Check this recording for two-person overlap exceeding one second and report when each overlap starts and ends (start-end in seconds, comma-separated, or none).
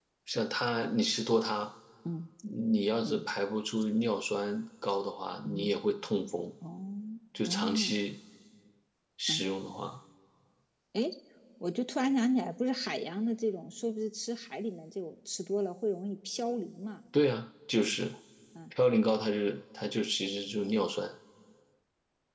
none